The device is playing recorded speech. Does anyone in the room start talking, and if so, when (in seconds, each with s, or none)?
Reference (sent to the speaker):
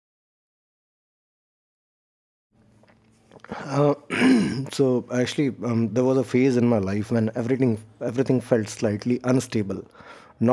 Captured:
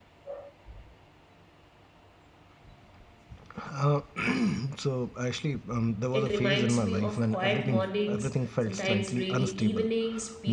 6.1 s